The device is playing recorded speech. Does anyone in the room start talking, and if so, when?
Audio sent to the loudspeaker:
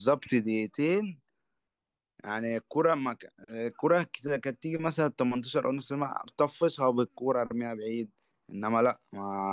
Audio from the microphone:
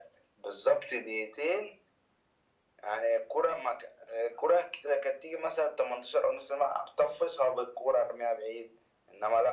none

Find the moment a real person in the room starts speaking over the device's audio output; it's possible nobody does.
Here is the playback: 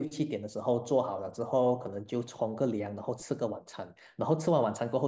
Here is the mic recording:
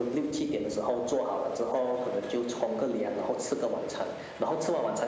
none

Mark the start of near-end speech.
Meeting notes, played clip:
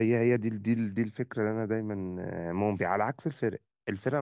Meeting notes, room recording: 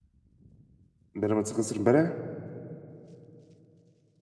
1.2 s

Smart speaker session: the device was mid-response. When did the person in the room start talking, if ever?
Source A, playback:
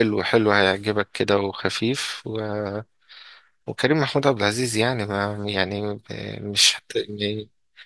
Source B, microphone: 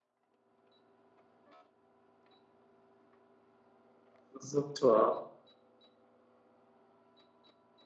4.3 s

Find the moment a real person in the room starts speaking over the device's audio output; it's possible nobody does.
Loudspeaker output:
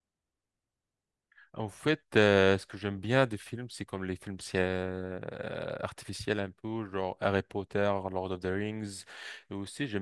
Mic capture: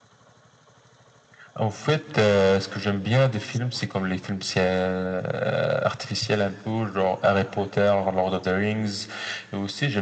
none

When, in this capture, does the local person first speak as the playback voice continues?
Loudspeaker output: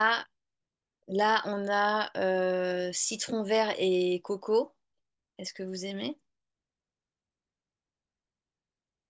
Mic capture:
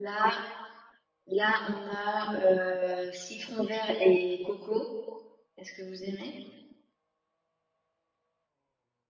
none

